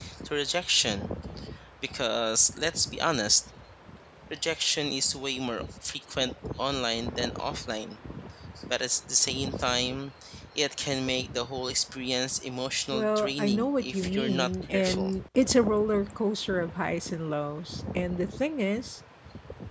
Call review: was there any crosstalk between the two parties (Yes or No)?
Yes